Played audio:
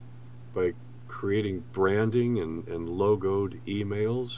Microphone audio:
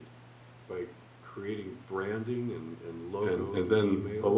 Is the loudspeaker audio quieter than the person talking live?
Yes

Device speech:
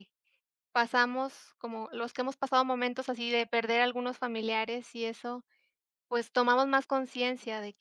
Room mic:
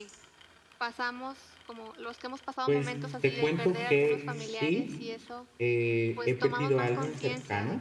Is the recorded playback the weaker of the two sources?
Yes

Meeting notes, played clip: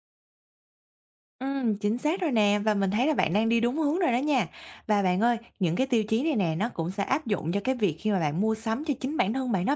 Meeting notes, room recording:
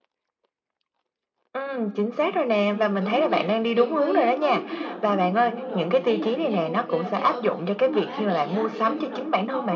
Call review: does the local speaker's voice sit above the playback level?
No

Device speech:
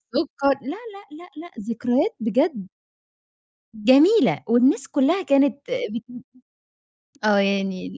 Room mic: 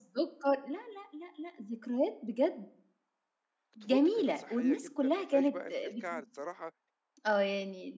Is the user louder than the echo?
No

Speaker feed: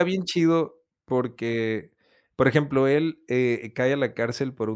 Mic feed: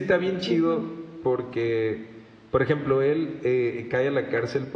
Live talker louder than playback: No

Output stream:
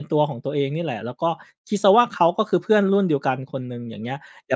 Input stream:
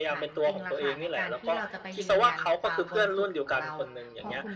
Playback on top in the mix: Yes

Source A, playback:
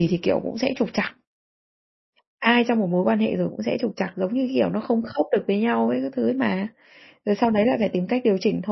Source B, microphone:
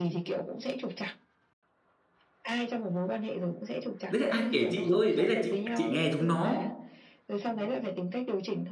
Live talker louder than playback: Yes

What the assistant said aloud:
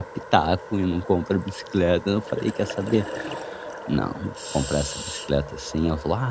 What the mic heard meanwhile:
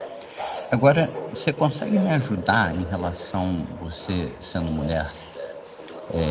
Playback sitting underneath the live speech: Yes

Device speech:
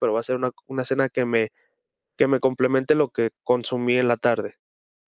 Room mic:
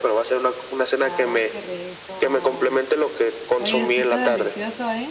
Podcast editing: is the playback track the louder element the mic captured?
Yes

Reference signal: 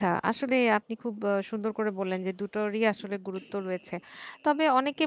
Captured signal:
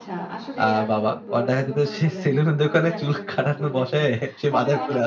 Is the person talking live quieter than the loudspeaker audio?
No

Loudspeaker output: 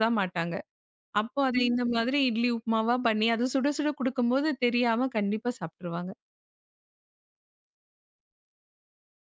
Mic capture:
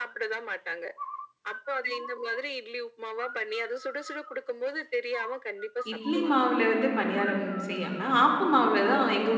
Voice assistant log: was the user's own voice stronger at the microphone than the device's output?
Yes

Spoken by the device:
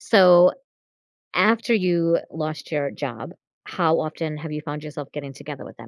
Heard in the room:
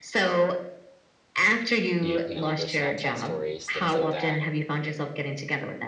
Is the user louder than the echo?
No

